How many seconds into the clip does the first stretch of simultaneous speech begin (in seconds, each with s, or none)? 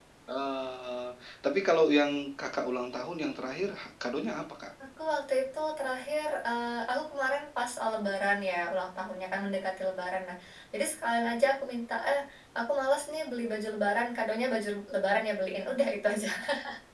none